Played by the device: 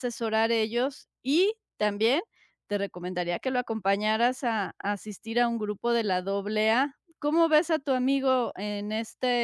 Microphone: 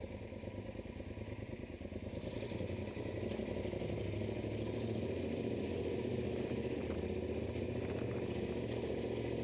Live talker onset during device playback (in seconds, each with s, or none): none